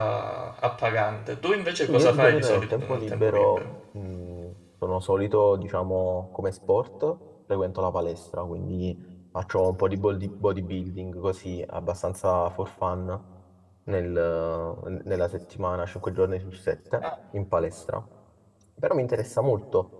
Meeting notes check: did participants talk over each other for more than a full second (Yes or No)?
Yes